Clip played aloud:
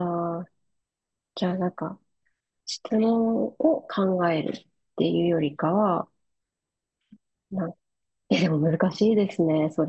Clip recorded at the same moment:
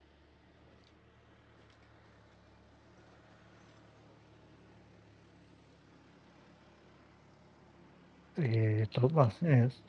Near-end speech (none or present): present